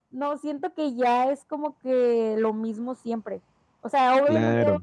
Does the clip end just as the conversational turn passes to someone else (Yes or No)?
No